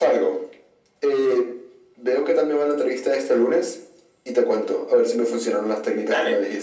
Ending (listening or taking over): taking over